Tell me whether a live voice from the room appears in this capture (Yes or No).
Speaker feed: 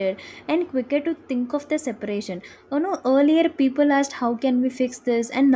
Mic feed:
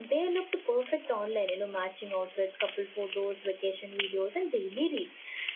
Yes